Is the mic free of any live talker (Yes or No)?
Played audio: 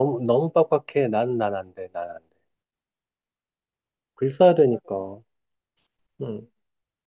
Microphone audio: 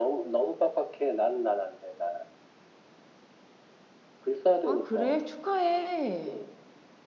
No